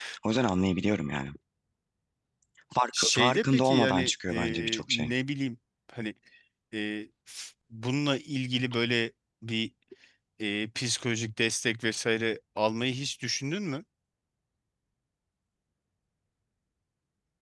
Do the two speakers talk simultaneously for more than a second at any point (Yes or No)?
Yes